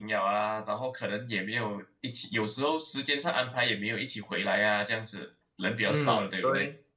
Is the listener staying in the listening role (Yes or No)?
No